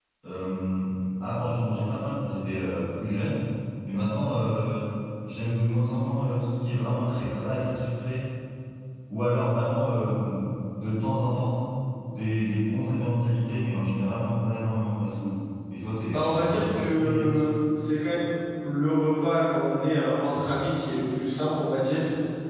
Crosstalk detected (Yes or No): Yes